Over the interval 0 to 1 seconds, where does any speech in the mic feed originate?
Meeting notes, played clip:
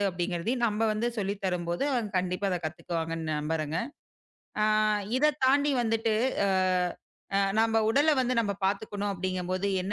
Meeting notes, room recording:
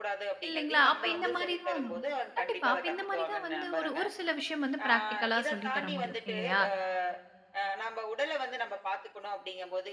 both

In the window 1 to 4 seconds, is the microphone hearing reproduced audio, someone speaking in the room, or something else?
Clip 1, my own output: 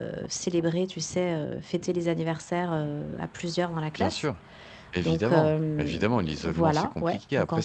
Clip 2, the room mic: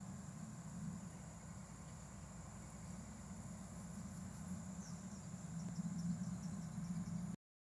neither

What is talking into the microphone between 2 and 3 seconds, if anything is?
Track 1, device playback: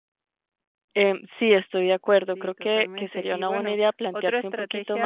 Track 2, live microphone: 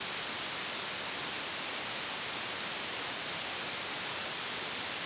neither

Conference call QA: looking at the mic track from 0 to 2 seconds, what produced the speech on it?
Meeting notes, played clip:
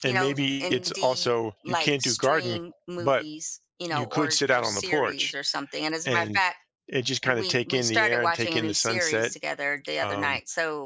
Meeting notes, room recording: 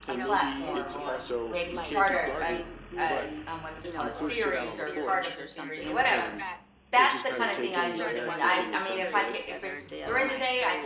both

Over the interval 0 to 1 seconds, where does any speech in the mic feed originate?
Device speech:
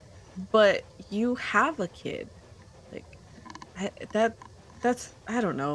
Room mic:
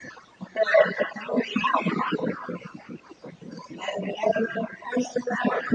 echo only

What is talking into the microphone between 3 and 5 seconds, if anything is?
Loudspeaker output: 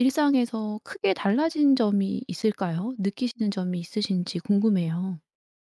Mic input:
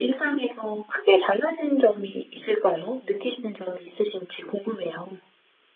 echo only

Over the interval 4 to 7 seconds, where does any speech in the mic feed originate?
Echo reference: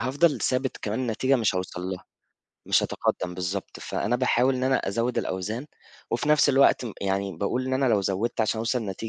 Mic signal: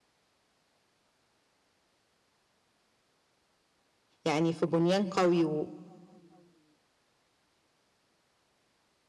user only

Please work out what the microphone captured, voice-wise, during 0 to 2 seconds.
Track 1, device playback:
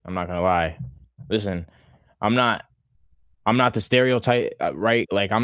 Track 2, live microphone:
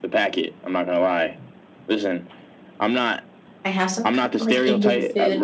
echo only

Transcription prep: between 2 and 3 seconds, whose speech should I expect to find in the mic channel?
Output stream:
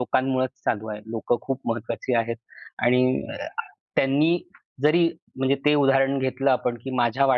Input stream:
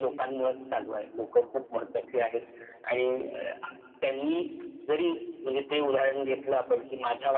echo only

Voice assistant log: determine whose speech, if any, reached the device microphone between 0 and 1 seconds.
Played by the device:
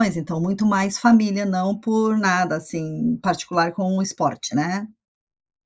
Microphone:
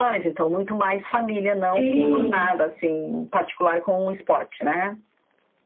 echo only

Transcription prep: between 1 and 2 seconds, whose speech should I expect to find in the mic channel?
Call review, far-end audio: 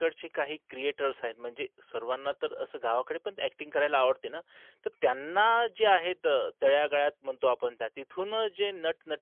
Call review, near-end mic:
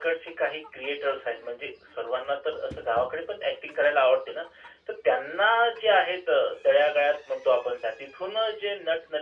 echo only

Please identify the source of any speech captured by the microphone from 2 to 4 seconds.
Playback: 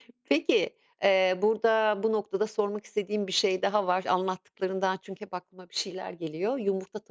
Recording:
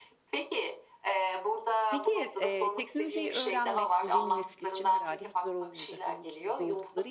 both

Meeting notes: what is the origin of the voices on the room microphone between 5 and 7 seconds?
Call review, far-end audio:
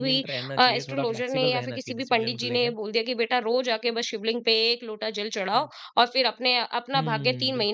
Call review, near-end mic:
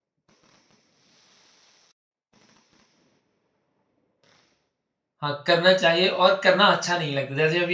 user only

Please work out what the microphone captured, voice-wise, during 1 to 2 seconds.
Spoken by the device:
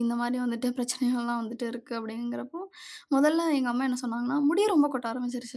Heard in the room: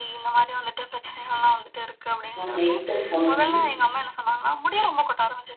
echo only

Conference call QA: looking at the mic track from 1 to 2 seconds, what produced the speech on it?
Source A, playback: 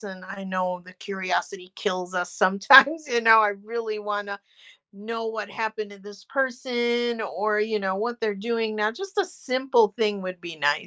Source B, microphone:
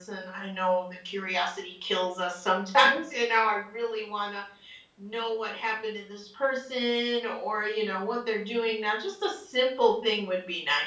echo only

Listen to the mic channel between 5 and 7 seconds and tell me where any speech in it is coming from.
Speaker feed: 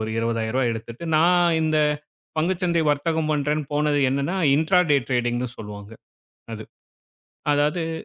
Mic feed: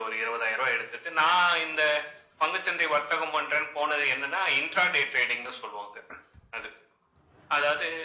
echo only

